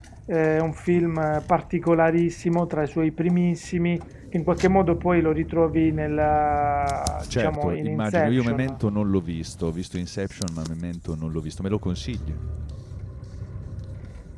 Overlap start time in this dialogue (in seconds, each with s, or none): 7.2 s